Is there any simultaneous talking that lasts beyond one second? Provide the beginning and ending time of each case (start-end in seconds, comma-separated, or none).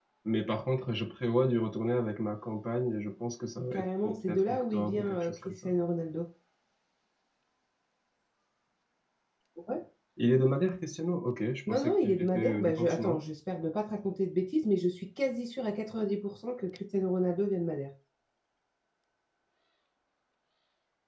3.7-5.7, 11.7-13.2